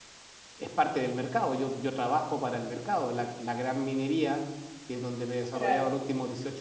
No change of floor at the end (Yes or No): Yes